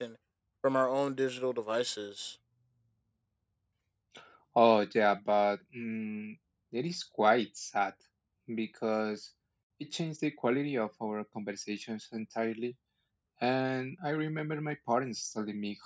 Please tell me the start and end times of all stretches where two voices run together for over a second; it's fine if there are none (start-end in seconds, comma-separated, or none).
none